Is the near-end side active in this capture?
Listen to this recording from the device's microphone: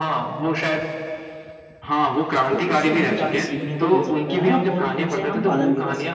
Yes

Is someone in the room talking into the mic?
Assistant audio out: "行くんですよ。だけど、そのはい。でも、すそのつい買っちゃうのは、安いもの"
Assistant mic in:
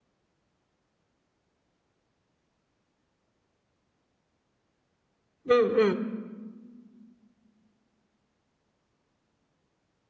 Yes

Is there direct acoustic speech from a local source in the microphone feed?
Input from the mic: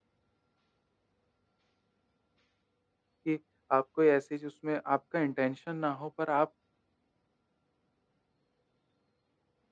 Yes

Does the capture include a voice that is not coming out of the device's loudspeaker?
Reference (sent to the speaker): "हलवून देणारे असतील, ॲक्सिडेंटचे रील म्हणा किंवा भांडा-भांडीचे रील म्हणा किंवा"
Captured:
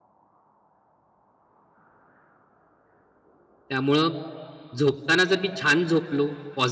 Yes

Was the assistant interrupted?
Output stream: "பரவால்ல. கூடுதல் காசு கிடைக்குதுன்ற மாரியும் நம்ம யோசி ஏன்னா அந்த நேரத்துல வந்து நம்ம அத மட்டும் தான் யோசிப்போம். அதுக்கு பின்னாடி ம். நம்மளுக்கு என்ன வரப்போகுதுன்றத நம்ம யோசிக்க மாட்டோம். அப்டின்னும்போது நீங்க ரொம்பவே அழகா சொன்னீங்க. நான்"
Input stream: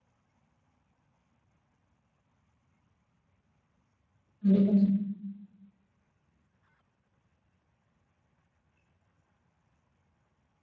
Yes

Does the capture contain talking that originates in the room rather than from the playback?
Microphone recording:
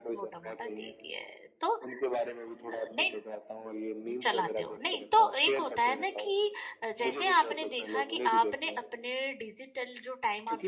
Yes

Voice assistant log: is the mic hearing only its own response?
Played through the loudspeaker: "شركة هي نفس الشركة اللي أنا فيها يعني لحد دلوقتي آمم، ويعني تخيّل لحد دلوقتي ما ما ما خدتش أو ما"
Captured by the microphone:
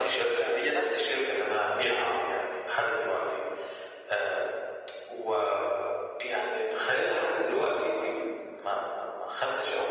Yes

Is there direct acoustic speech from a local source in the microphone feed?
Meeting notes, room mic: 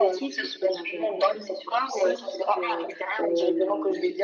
Yes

